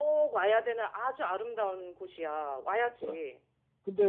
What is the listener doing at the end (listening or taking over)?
taking over